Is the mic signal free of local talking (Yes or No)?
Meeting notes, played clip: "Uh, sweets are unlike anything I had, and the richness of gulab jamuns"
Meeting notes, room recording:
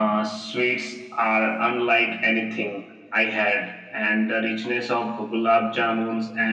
Yes